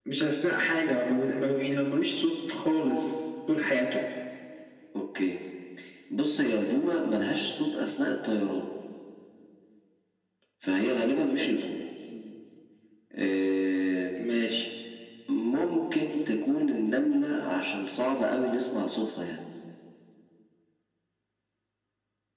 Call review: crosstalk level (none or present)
none